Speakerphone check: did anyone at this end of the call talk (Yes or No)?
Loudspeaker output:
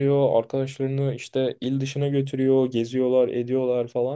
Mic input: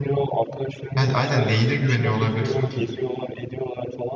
Yes